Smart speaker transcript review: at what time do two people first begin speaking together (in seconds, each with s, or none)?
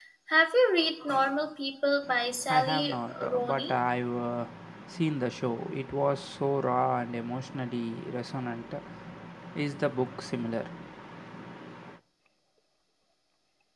2.5 s